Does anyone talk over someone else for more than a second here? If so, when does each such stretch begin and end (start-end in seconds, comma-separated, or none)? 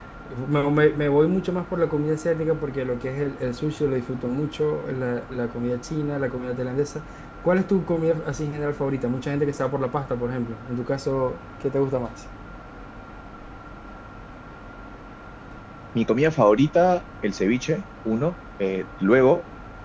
none